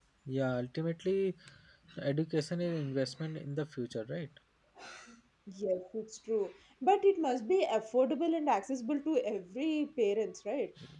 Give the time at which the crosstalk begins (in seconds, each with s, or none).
none